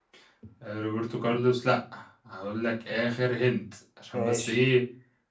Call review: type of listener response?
listening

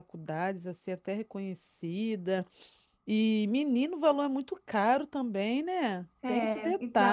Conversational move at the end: taking over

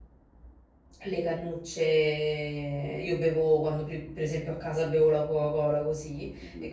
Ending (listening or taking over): listening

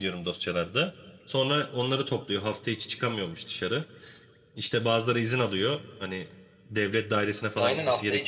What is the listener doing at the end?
taking over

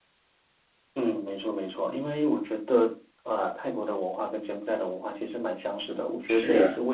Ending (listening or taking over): listening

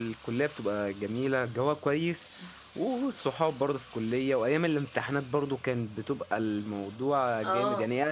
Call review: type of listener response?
listening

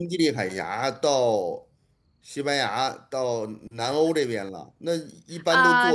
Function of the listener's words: taking over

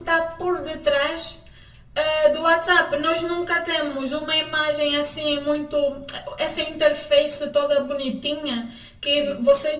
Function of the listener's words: listening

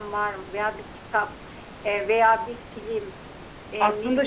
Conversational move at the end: listening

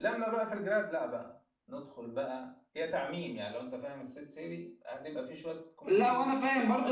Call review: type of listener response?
taking over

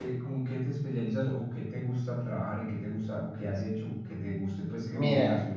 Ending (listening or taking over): taking over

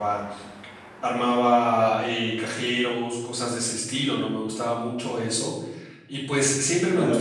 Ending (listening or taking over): listening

